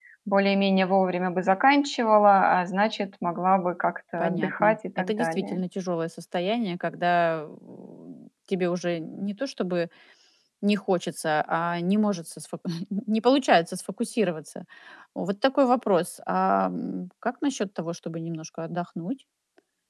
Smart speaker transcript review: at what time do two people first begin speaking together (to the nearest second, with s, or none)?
4 s